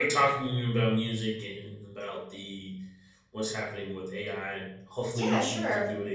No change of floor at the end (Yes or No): No